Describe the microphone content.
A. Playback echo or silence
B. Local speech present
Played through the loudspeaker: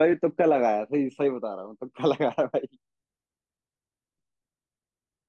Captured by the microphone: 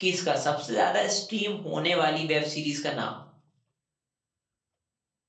B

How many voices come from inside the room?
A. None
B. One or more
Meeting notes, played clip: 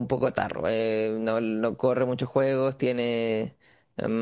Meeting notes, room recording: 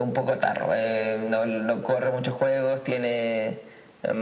A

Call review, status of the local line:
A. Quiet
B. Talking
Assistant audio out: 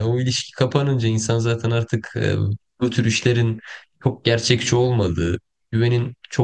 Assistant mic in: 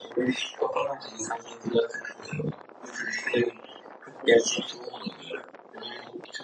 A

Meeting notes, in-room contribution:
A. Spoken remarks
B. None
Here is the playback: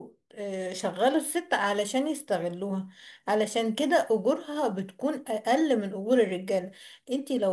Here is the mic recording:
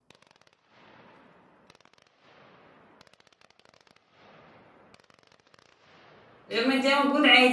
A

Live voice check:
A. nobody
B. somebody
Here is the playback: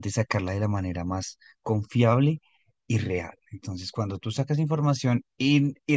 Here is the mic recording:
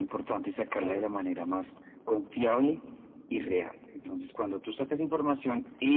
B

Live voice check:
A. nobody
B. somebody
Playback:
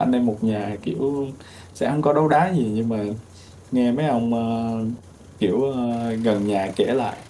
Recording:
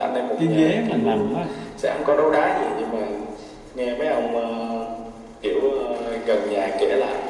B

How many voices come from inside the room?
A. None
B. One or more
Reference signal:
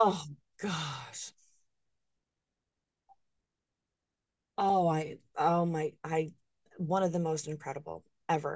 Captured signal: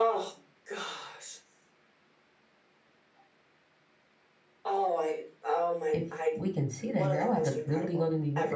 B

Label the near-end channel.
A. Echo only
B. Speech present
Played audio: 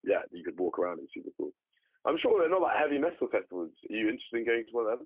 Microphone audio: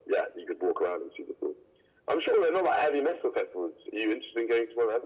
A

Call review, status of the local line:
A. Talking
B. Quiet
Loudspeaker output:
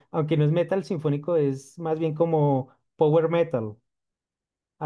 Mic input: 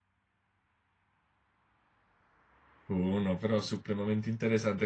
A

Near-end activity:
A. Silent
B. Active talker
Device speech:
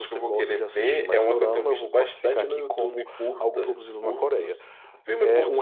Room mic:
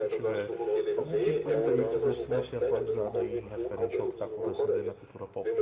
B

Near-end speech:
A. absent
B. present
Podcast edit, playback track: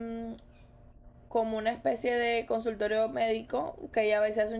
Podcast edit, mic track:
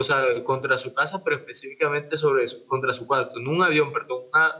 B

